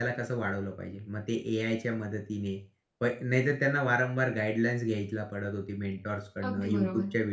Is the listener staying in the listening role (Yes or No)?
Yes